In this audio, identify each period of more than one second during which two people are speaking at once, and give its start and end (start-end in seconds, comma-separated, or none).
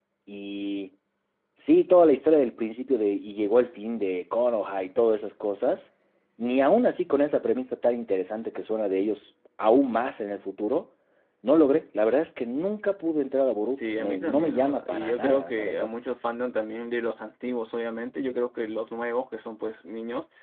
13.7-15.9